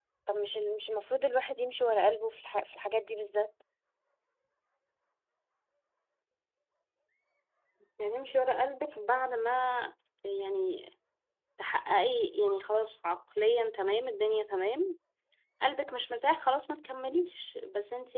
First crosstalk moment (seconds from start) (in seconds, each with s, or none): none